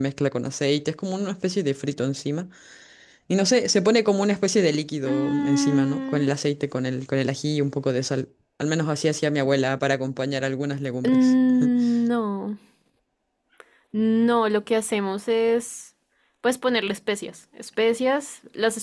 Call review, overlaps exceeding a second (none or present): present